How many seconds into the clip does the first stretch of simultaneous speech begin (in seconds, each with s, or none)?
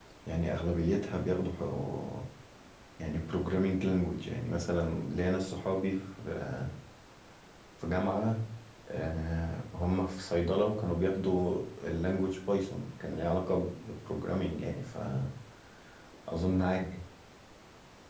none